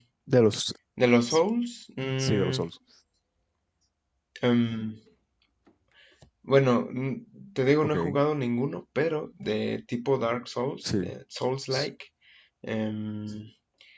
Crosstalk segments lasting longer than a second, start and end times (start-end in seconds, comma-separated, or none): none